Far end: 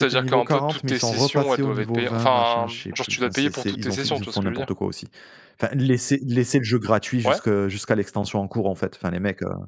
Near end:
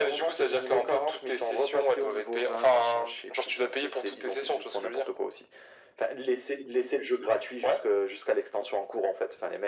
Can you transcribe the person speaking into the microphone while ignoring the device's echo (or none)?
none